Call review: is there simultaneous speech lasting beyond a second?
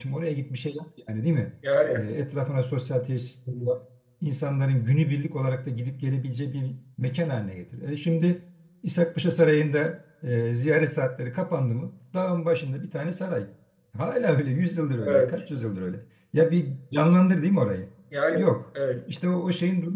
No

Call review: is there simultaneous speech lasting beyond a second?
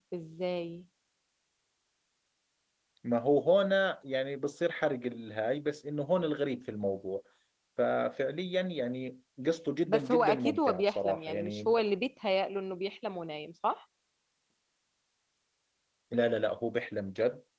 Yes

